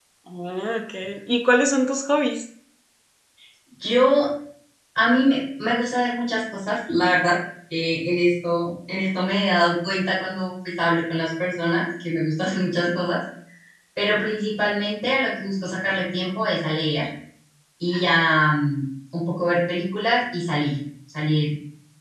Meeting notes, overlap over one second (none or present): none